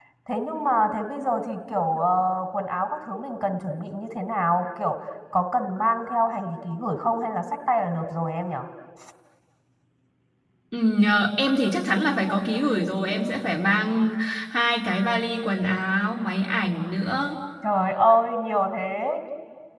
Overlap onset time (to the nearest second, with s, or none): none